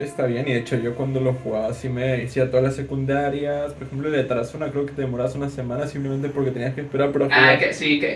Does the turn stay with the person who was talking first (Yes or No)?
No